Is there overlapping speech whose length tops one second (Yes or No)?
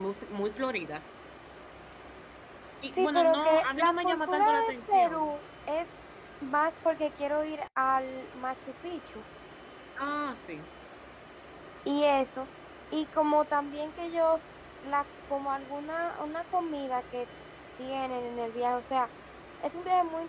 Yes